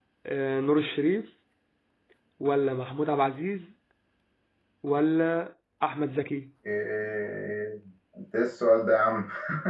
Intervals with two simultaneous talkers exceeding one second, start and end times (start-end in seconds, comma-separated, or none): none